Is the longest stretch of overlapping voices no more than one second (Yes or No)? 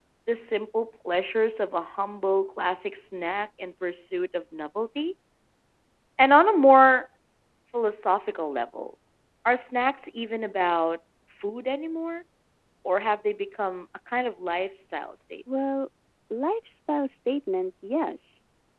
Yes